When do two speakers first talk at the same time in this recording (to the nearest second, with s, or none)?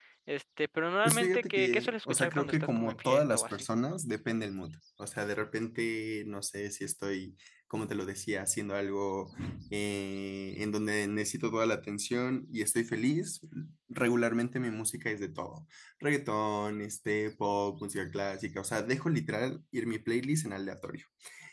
1 s